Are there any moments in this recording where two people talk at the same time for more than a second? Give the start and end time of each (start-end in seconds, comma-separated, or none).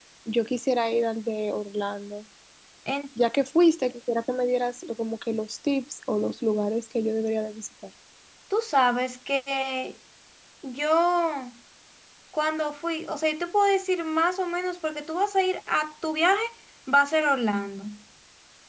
none